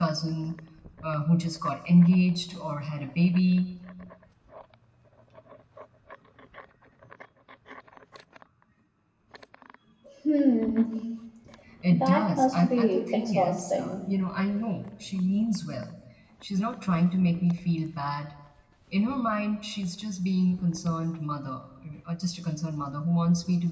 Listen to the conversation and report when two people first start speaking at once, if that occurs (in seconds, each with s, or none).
11.9 s